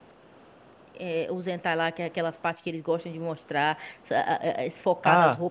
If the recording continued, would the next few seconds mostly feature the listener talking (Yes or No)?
Yes